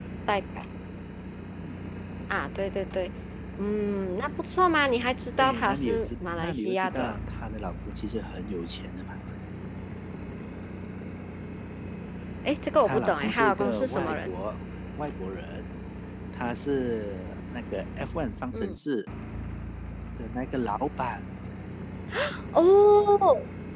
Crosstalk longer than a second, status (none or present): present